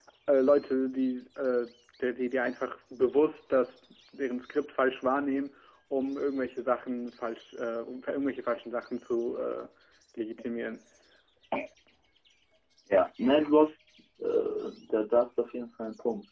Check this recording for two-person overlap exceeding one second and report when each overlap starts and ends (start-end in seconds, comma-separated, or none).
none